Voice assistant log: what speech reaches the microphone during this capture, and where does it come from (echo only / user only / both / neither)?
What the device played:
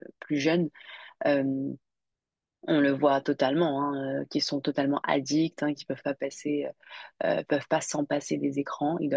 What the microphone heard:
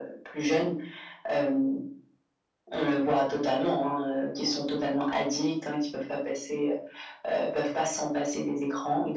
echo only